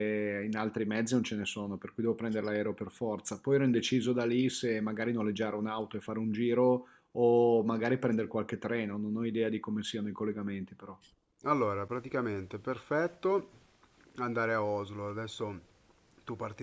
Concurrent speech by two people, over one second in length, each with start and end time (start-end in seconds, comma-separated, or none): none